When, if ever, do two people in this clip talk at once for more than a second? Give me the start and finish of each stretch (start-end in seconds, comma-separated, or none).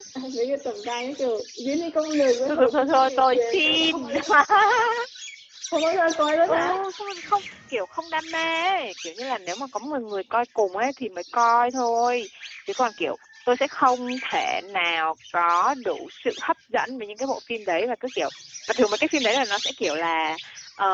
2.5-4.1